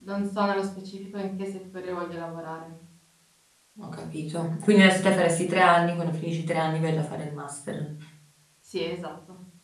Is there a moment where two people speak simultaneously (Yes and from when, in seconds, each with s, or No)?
No